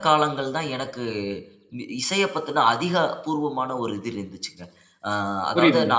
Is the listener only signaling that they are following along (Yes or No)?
Yes